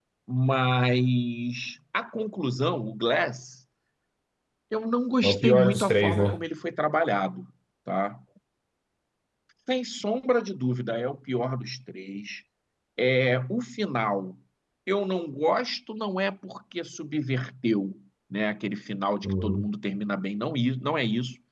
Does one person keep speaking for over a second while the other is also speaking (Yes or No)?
Yes